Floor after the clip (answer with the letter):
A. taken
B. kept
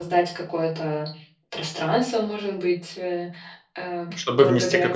A